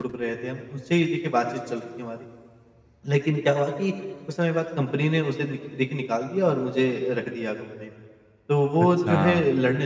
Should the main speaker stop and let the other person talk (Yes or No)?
No